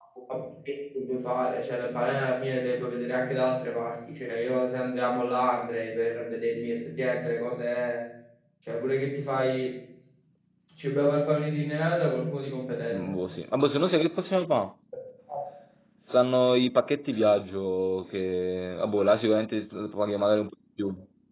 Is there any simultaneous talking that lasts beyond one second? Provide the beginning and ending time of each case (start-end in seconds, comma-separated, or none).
none